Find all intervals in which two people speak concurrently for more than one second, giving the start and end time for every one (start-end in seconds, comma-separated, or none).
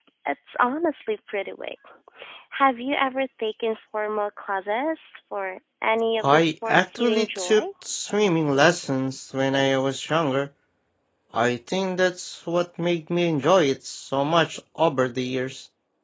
6.2-7.6